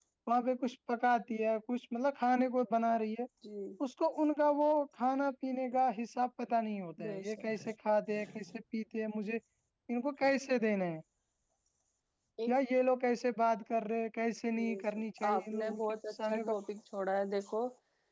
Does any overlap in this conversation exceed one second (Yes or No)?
Yes